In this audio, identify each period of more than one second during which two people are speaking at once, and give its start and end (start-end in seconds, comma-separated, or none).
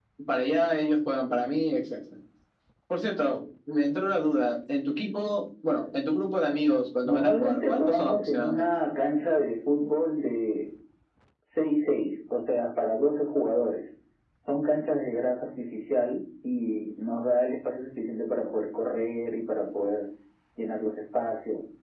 7.0-8.7